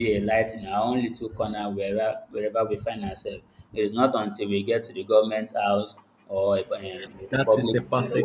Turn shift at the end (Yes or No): Yes